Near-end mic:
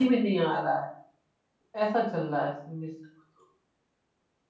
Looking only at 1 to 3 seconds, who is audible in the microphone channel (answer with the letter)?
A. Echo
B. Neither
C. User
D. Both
C